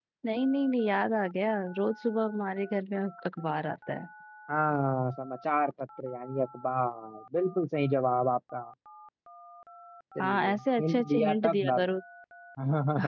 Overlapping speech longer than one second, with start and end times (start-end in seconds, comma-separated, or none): 10.2-11.8